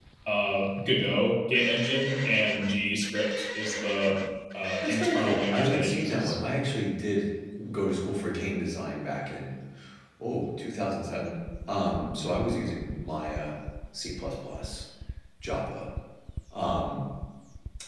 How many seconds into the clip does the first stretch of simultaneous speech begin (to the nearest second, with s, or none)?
5 s